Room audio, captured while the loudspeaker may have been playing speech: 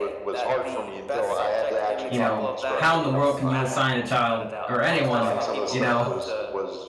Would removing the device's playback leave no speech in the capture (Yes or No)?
No